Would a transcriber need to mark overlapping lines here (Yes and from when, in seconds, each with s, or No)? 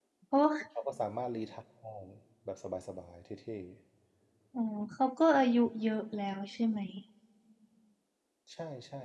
No